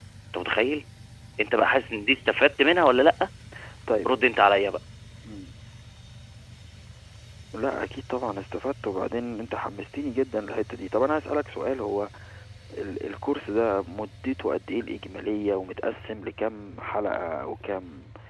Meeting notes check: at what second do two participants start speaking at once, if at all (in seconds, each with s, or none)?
none